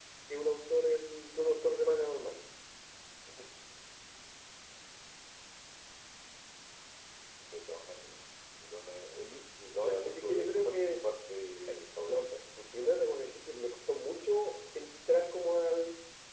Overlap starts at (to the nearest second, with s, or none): 10 s